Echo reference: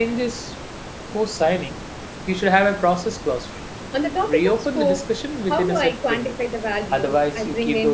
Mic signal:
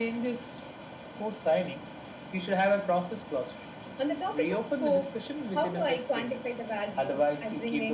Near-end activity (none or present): none